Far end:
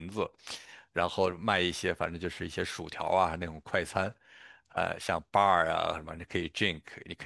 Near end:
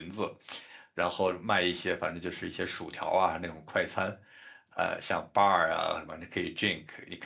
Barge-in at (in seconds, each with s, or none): none